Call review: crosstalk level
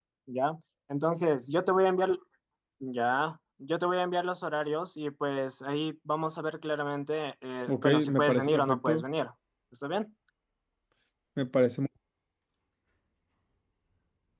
present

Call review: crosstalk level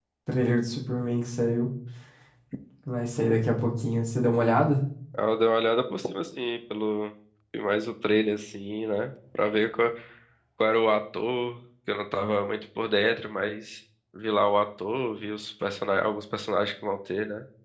none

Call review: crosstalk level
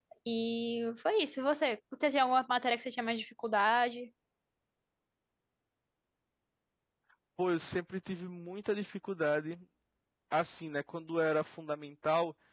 none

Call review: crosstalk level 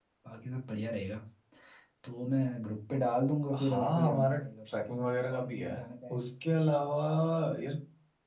present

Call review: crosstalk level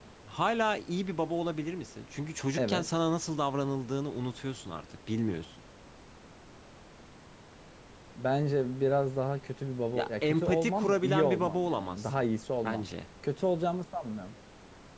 present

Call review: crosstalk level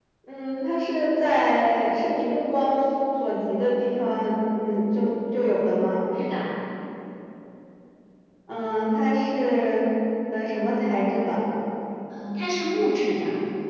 none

